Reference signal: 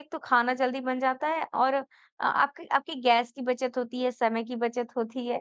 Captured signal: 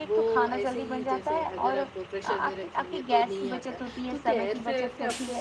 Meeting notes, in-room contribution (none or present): present